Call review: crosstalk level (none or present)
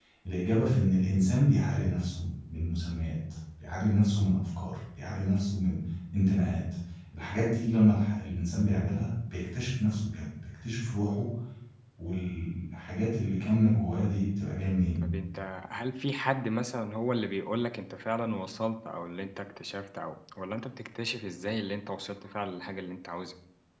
none